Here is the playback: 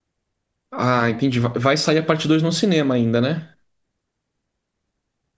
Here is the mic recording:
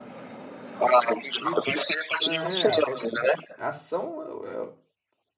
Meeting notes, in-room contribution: present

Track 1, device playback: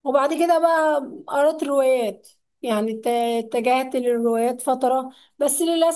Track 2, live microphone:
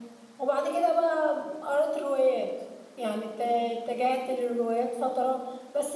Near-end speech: none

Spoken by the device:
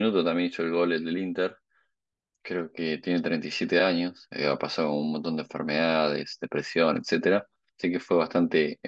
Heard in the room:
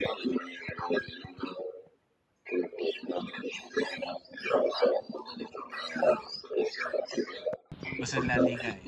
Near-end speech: present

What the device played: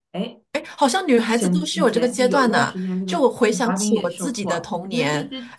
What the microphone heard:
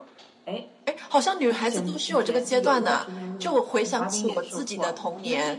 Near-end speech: none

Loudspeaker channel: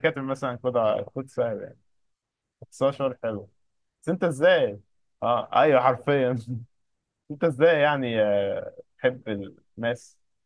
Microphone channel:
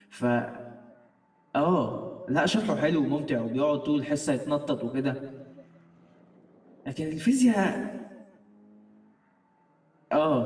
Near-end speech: present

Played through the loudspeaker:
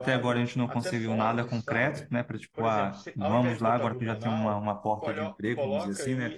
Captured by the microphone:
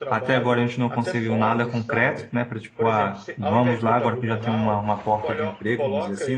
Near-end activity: none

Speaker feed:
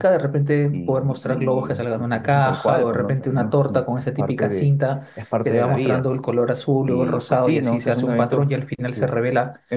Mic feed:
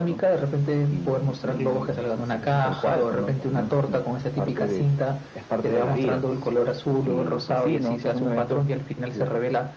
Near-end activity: none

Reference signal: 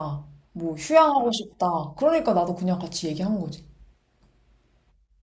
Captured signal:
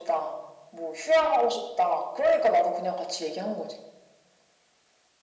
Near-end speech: none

